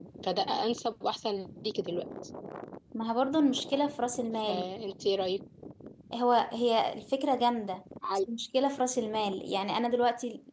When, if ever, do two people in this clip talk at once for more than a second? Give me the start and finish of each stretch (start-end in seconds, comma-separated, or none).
none